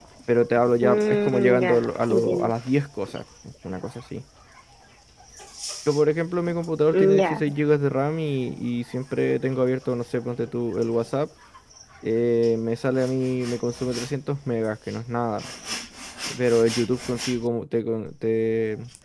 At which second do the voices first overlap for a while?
0.8 s

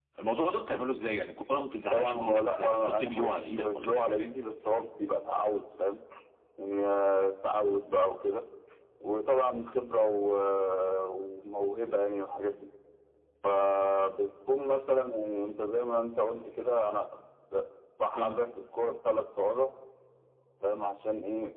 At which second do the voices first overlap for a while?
1.9 s

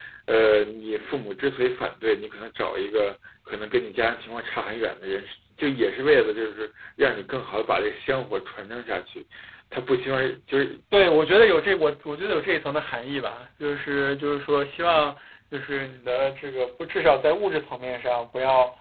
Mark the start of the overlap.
none

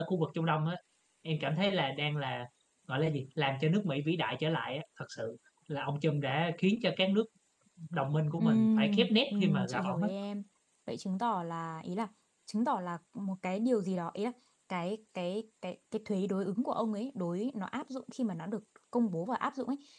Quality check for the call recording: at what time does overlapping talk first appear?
8.4 s

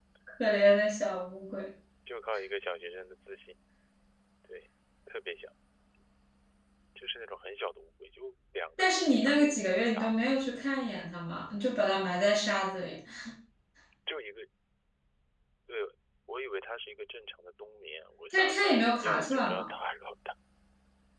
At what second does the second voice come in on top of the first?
8.8 s

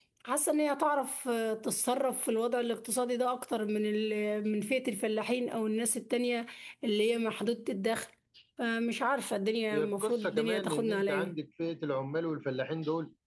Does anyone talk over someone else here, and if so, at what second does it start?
9.7 s

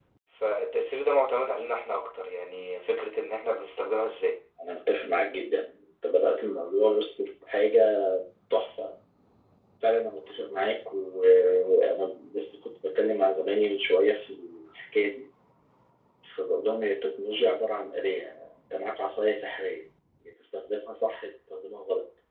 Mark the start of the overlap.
none

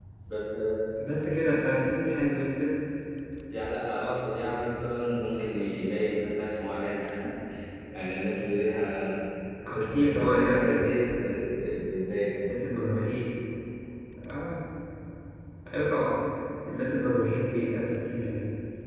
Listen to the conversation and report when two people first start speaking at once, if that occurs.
9.7 s

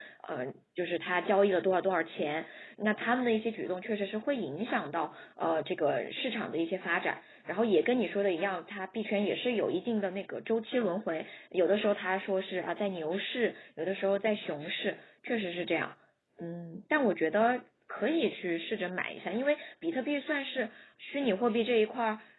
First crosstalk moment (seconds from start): none

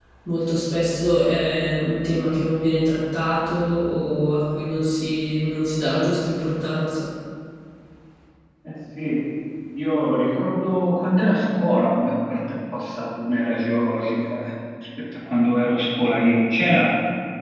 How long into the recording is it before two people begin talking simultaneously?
none

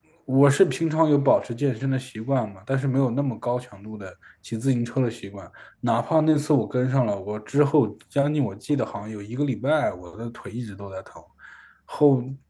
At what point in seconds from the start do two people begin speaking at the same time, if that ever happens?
none

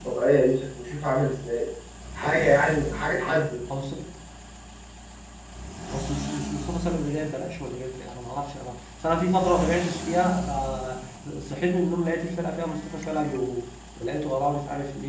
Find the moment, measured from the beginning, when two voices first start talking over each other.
none

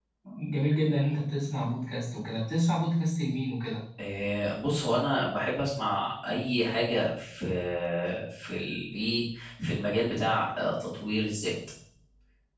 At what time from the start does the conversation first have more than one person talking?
none

